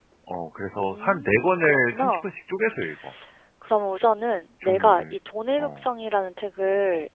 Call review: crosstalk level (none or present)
present